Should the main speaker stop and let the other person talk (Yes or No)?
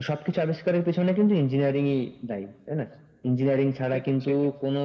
No